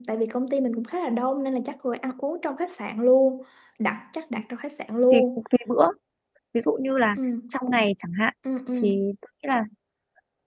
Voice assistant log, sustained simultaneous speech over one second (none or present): none